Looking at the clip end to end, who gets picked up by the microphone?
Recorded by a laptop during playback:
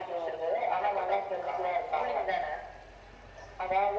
echo only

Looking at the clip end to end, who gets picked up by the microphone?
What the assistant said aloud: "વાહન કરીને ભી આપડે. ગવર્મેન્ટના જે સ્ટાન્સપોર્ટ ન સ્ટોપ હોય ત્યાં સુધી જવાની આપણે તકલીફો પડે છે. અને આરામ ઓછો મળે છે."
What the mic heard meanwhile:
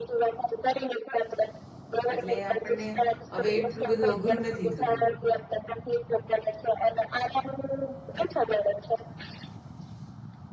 both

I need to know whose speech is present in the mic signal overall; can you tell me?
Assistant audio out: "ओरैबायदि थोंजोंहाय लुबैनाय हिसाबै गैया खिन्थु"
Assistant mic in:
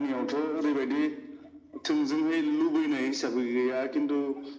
echo only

